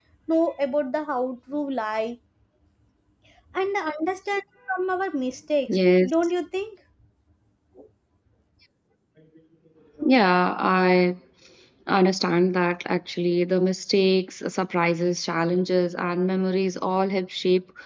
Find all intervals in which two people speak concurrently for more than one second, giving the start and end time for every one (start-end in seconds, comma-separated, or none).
none